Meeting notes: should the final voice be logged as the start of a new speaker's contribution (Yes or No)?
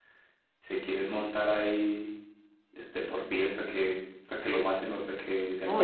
Yes